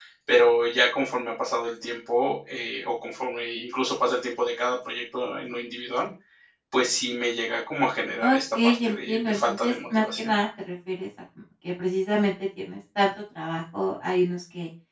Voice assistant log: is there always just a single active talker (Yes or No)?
No